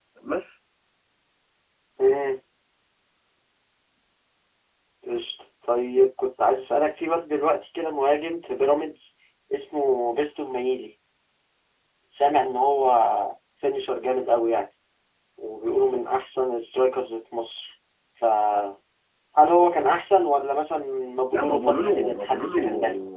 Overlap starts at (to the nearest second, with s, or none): 21 s